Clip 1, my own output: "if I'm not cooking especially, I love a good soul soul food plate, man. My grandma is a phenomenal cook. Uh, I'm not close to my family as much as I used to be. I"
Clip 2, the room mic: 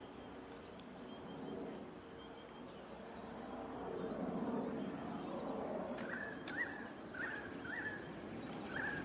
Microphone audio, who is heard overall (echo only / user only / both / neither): neither